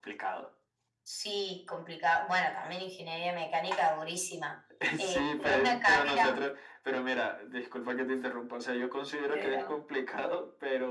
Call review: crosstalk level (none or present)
present